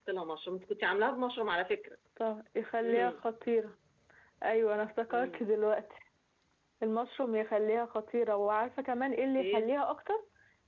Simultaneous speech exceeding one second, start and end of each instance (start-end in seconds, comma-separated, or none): none